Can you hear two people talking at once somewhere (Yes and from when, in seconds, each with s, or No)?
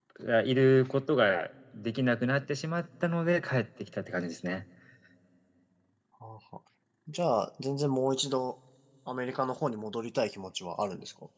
No